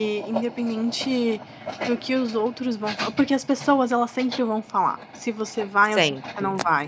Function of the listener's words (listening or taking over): listening